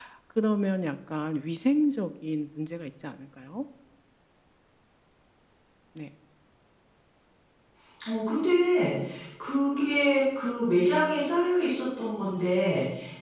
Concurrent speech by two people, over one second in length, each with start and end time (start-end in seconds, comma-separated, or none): none